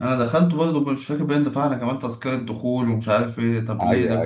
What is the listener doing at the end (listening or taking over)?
listening